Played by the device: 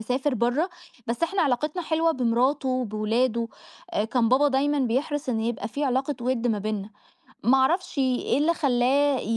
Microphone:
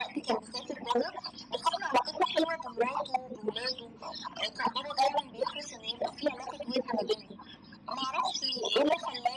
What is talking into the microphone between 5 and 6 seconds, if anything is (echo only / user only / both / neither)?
echo only